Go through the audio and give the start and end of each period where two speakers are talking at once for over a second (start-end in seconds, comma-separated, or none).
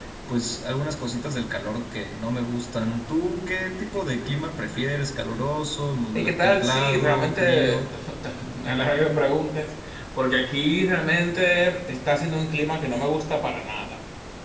6.2-7.8